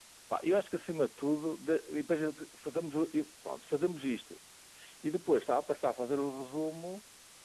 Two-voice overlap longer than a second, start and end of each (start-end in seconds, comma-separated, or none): none